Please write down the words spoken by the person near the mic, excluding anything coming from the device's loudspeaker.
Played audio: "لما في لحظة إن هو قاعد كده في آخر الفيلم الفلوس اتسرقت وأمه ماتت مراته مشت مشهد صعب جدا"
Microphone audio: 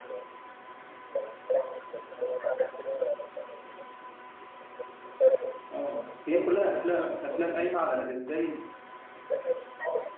اه هي كلها افلام افلام قايمه على ازاي

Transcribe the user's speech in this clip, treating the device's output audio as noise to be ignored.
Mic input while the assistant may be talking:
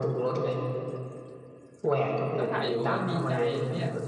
ก็ถ่ายอยู่เขาก็ดีใจทีเนี้ย

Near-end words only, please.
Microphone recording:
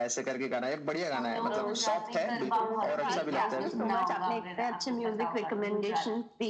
हम लोग गुजरात में गरबा बहुत खेलते हैं आपने सुना होगा अगर आपको पता होगा तो गुजरात

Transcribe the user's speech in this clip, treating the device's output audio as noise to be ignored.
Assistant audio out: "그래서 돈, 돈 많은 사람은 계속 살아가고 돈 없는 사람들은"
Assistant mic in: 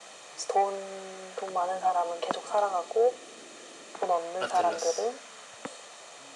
아틀라스.

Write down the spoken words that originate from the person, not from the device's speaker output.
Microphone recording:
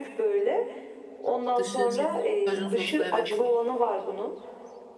Dışı şey, kajun soslu evet.

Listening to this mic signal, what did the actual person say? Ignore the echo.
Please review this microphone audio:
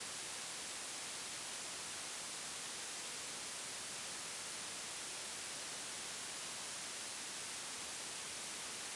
none

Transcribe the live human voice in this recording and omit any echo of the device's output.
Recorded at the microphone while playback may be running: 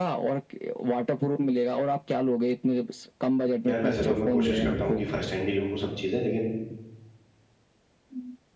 यार वैसे तो मैं कोशिश करता हूँ कि फर्स्ट हैंड ही लूँ सब चीज़ें लेकिन

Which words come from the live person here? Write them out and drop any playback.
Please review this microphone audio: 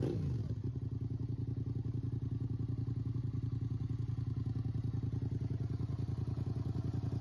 none

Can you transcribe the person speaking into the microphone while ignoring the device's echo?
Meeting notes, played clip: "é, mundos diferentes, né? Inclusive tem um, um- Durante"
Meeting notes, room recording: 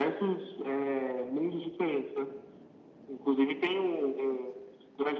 none

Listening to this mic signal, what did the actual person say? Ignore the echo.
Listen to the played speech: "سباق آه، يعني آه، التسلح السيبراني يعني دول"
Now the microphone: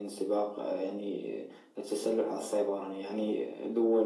none

